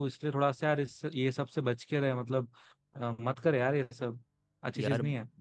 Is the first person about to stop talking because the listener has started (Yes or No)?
Yes